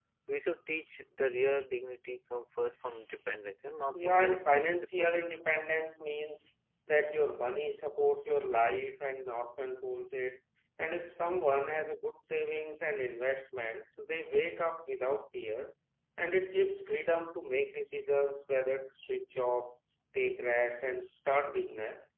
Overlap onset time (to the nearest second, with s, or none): 4 s